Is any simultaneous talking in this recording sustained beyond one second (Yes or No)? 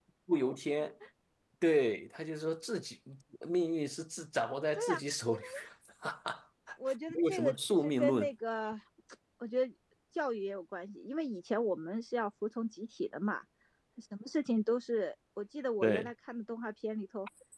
Yes